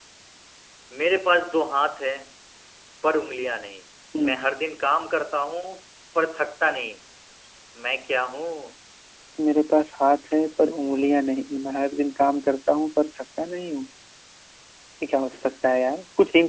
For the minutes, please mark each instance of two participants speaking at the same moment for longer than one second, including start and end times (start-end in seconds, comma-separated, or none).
none